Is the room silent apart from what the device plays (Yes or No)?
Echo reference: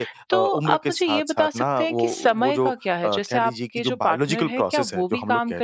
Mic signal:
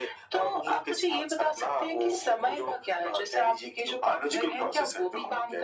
Yes